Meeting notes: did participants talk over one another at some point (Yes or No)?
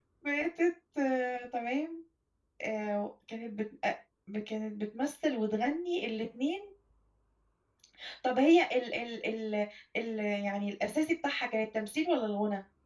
No